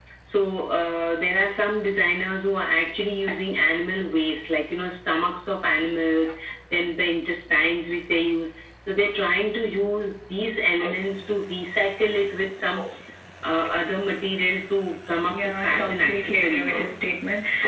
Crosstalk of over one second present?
Yes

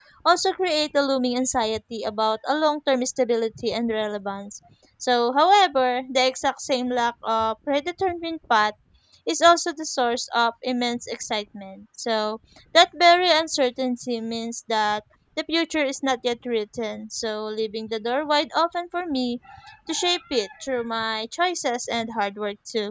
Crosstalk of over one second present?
No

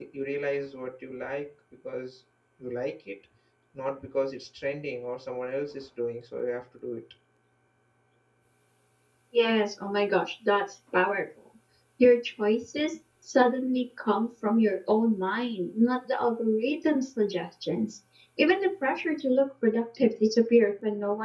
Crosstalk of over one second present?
No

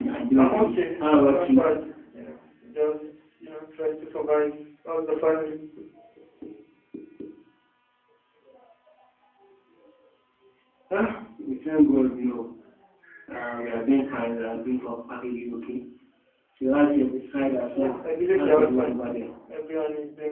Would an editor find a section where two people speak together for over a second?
Yes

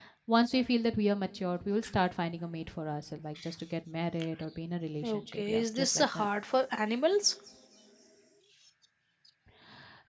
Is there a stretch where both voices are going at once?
Yes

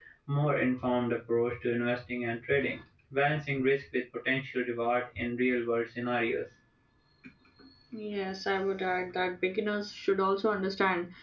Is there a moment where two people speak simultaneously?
No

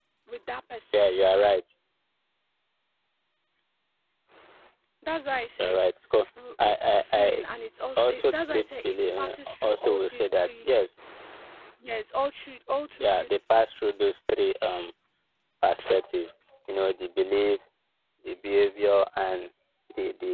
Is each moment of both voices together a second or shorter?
No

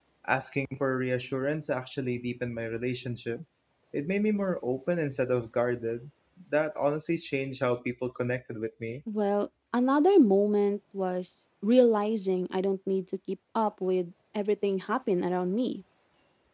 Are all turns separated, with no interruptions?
Yes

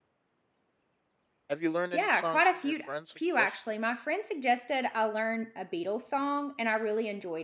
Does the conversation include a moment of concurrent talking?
Yes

